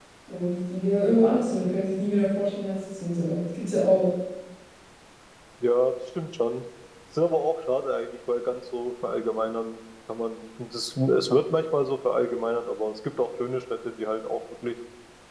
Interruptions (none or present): none